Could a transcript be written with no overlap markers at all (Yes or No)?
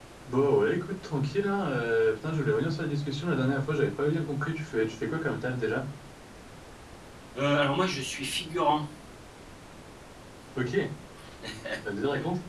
Yes